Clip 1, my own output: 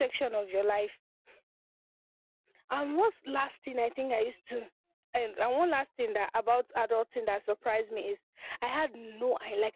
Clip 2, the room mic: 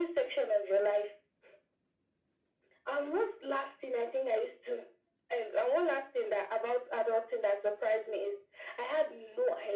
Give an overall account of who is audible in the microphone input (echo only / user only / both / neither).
echo only